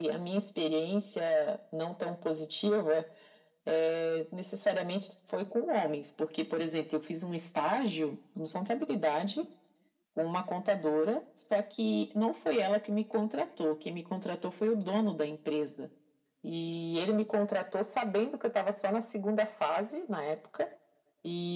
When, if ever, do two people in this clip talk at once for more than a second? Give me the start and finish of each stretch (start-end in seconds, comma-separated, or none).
none